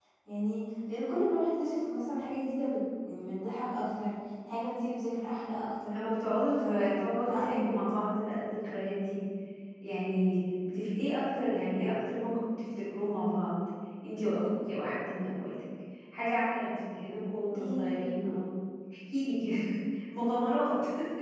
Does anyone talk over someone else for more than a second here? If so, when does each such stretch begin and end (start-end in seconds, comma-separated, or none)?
6.5-7.8